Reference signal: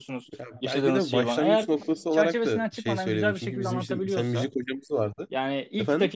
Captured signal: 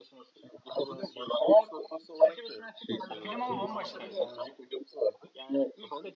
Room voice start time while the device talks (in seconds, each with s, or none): 3.1 s